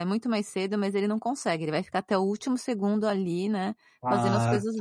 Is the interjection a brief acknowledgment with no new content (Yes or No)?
No